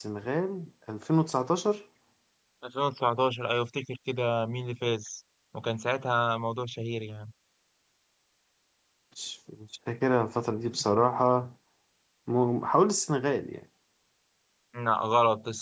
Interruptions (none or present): none